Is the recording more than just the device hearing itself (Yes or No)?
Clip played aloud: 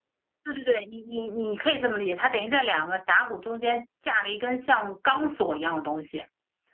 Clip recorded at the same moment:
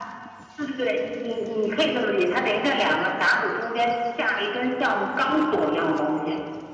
No